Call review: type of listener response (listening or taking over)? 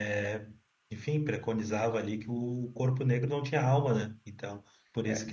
taking over